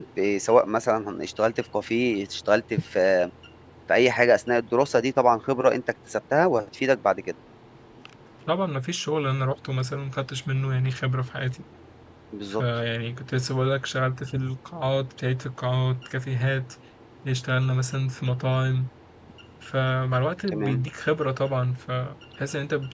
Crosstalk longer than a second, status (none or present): none